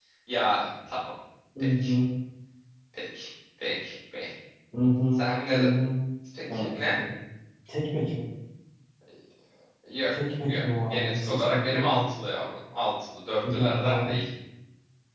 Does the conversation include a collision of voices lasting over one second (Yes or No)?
Yes